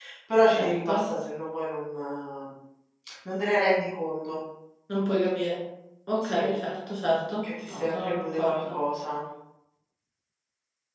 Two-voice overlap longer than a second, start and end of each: 7.4-8.8

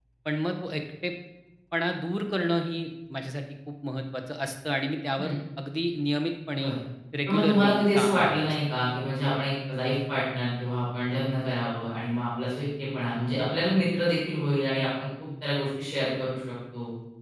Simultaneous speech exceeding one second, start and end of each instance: 7.3-8.5

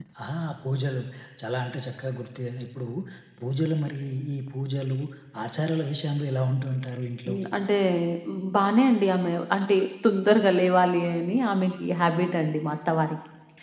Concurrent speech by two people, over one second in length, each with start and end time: none

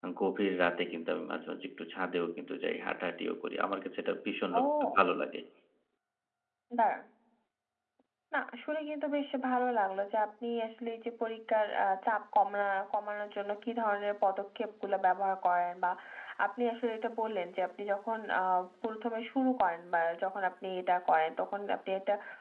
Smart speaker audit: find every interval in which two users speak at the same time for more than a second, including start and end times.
none

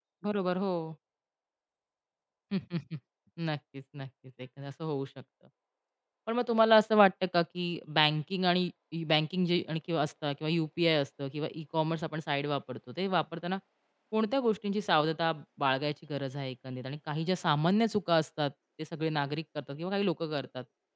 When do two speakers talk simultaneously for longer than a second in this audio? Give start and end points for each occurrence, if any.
none

